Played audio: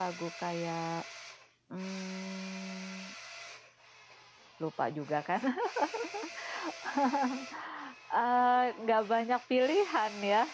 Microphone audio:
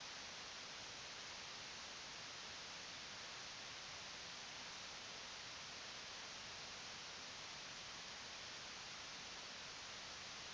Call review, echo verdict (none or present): none